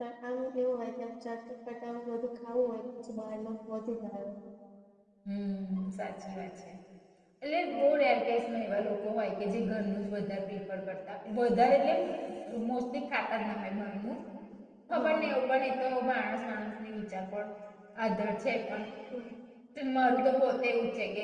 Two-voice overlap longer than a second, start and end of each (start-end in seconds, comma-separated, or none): none